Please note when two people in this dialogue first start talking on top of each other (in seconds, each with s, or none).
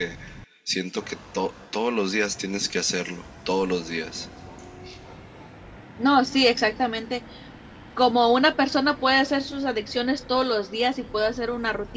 none